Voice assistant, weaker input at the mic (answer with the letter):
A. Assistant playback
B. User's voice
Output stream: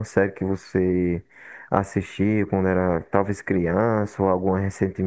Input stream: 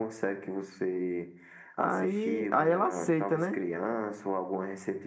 A